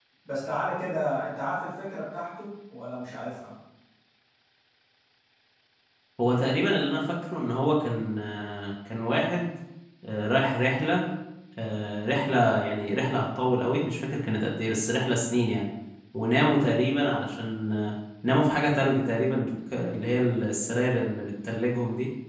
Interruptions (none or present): none